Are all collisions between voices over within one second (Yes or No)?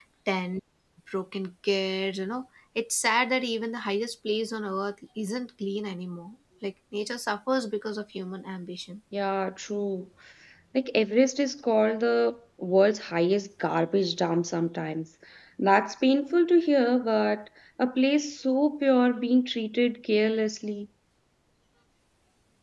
Yes